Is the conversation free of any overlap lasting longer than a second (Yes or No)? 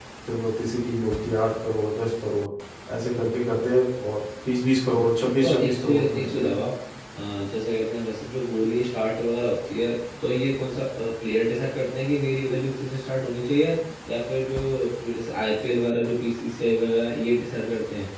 No